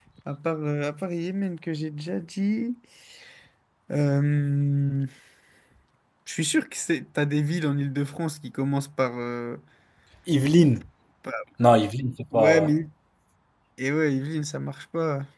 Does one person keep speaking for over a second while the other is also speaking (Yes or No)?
No